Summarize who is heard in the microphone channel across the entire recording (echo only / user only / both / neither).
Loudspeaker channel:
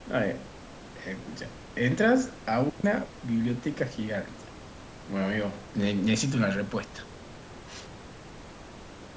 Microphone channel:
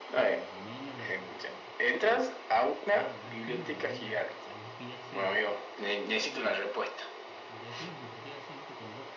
both